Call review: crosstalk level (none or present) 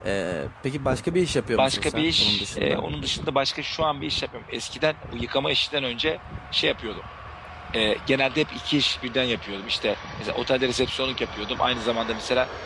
present